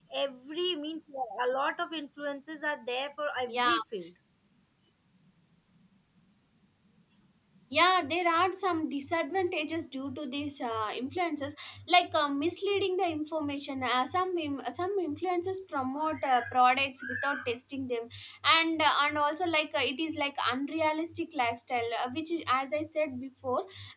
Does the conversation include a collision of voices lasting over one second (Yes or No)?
No